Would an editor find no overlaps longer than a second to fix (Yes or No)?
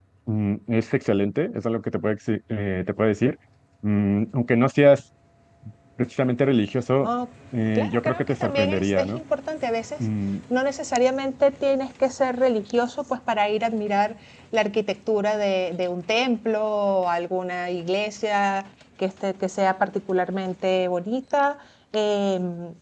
No